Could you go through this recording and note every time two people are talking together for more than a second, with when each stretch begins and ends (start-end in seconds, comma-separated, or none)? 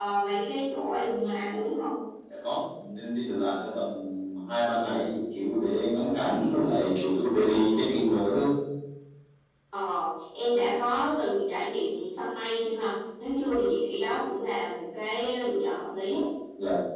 none